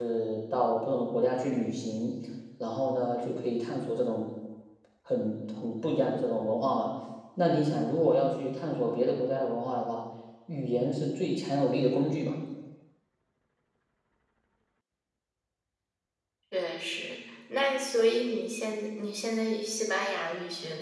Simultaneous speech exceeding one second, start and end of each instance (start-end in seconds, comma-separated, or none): none